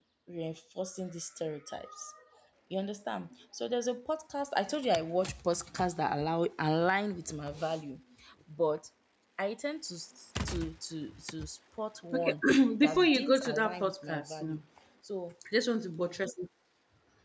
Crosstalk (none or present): present